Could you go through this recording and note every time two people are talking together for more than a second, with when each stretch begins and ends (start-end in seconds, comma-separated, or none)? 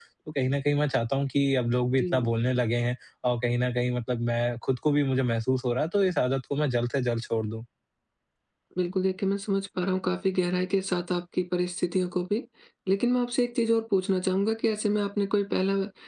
none